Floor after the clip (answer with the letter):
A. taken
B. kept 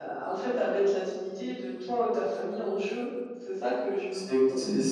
A